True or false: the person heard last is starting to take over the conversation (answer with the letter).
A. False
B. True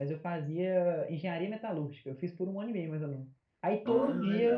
A